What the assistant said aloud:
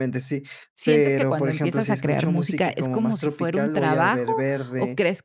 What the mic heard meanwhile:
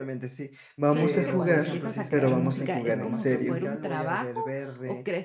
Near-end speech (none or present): present